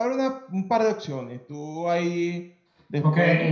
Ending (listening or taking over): taking over